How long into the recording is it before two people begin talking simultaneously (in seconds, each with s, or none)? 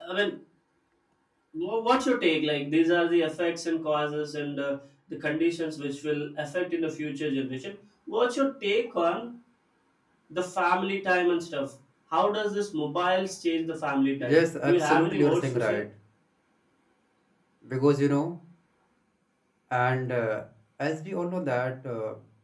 14.2 s